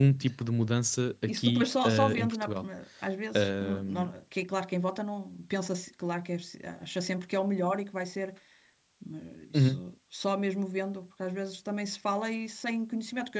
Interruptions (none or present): present